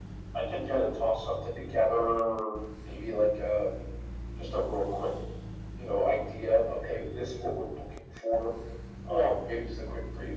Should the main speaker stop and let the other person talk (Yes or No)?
No